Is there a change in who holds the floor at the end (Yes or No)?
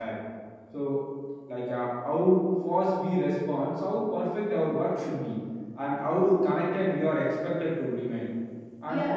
Yes